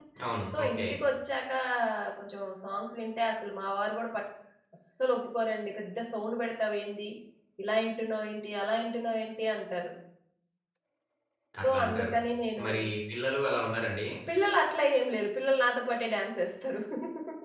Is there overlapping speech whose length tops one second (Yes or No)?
No